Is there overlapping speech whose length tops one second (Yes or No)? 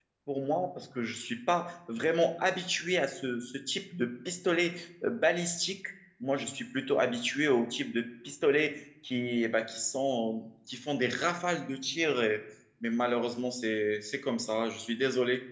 No